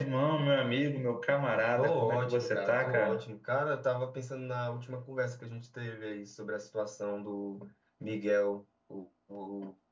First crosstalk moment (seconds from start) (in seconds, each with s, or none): 1.7 s